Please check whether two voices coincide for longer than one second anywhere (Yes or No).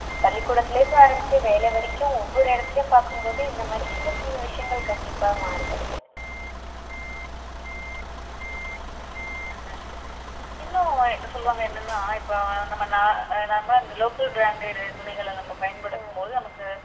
No